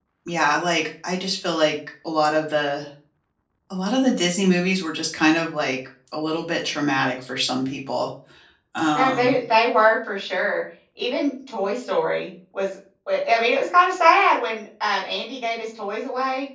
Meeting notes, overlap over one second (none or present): none